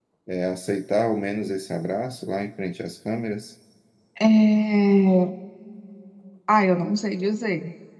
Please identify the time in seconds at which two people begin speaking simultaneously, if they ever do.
none

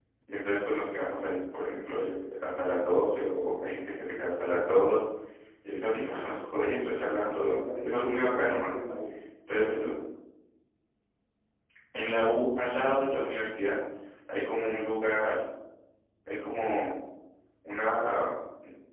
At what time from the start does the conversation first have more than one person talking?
7.4 s

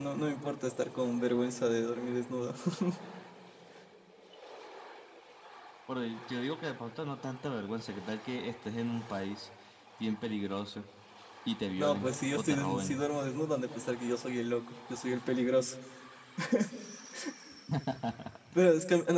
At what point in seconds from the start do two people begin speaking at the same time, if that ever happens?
11.8 s

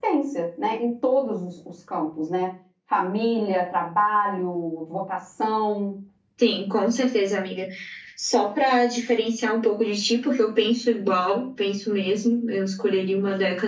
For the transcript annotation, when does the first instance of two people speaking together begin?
none

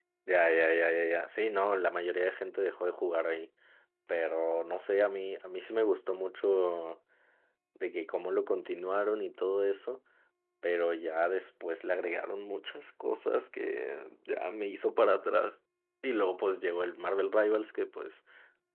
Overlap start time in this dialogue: none

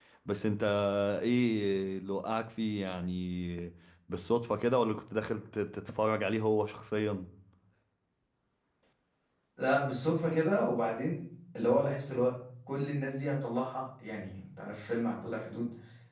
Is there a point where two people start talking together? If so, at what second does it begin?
none

